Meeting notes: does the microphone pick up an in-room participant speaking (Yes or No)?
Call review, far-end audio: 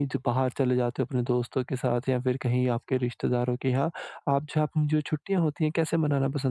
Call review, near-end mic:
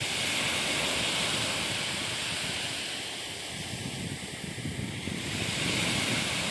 No